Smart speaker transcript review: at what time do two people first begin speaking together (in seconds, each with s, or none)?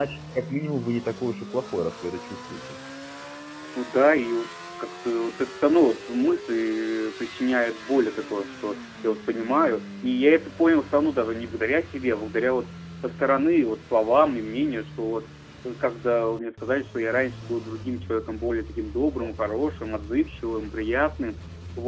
none